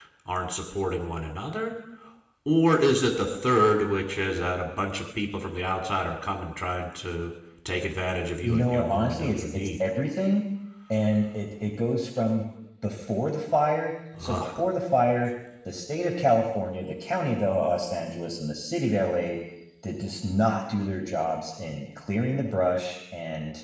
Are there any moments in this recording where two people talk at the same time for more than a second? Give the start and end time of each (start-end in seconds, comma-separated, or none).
8.4-9.8